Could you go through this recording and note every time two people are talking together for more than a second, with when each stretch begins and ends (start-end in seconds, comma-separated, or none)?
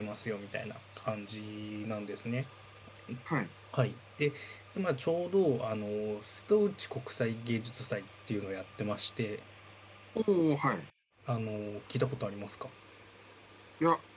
none